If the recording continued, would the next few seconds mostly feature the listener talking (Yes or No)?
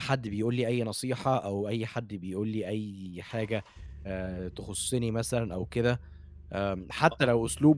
No